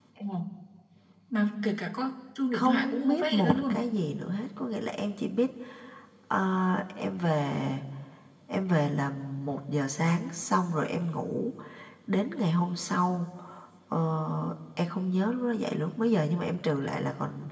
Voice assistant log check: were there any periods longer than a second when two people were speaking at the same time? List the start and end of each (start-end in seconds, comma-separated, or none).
2.5-3.9